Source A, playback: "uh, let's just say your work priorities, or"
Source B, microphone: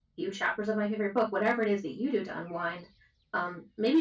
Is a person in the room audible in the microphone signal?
Yes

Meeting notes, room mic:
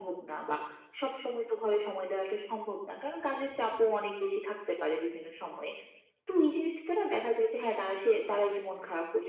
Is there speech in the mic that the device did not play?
No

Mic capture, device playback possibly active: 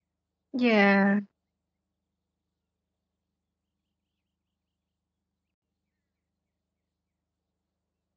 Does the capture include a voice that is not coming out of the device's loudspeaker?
Yes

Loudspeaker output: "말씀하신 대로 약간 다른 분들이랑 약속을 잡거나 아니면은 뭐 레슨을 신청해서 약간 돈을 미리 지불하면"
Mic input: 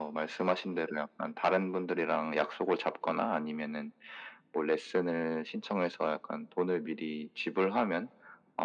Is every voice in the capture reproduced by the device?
Yes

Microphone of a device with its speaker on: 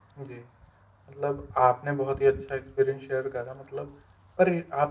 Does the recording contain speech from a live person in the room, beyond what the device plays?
Yes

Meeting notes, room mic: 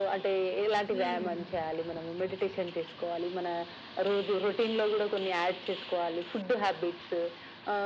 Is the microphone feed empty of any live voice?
No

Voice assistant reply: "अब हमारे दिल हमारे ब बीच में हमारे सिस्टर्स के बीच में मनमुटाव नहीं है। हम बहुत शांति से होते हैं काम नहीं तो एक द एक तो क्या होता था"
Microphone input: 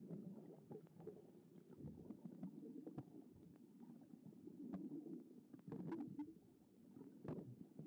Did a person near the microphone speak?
No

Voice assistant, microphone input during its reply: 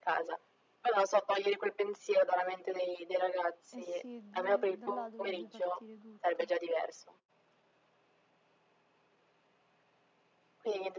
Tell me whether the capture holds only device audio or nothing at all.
No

